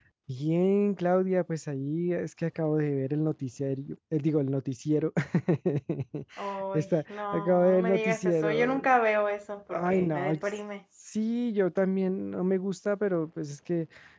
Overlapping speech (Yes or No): Yes